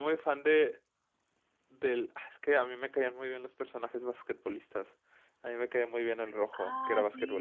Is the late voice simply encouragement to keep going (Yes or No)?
No